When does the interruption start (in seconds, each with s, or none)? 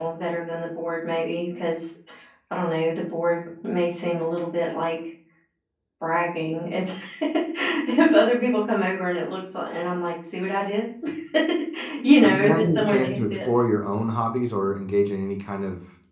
12.2 s